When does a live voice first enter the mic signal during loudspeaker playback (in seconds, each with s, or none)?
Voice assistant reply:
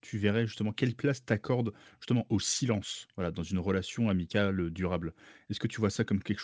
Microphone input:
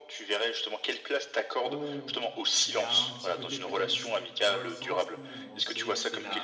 1.6 s